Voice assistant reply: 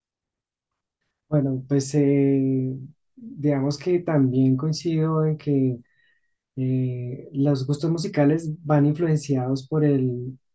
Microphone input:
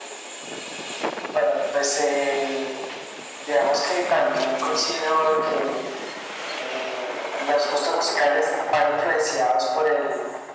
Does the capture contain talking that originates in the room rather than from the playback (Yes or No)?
No